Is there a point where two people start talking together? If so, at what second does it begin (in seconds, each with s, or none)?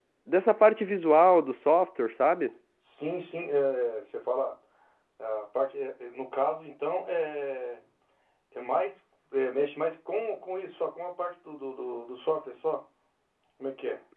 none